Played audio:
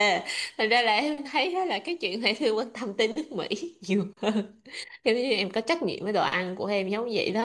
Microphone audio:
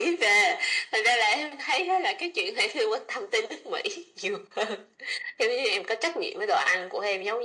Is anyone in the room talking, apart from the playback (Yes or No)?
No